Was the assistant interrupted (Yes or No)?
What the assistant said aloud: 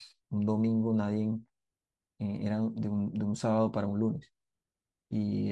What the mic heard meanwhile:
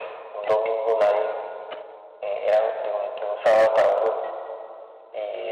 No